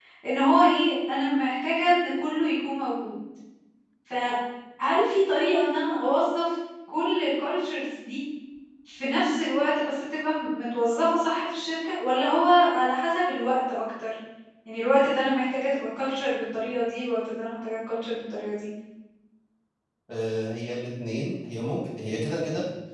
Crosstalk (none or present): none